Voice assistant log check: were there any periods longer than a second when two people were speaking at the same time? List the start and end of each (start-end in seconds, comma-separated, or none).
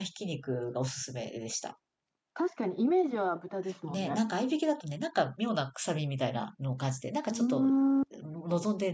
none